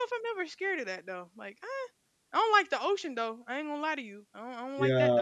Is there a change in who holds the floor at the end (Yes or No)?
Yes